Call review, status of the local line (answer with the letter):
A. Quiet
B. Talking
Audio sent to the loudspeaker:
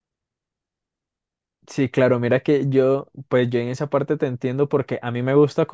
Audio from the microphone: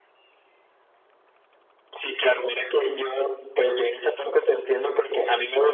A